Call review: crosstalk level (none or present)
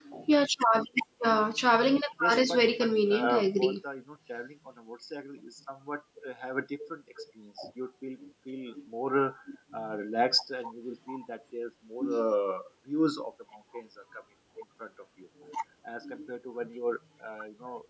present